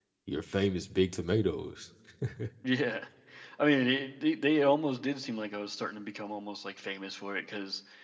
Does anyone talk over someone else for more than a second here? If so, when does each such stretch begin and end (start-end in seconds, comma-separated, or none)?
none